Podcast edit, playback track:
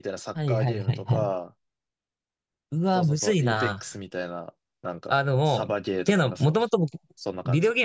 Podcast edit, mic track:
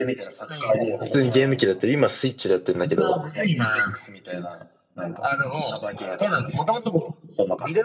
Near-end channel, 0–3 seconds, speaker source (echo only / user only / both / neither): both